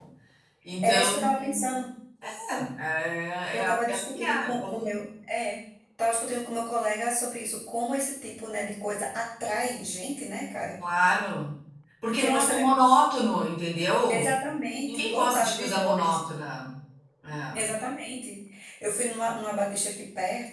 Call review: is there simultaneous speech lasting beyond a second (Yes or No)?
Yes